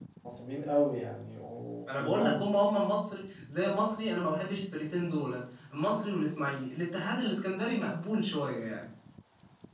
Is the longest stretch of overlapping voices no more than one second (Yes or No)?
Yes